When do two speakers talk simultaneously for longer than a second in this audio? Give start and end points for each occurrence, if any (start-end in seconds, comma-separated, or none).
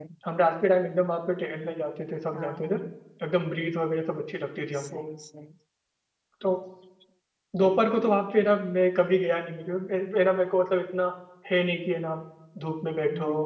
none